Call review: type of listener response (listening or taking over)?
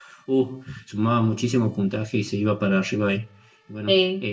listening